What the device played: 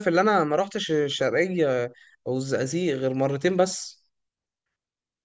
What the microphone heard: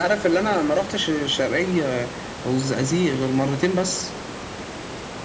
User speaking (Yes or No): No